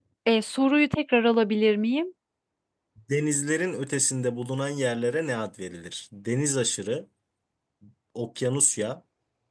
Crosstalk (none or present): none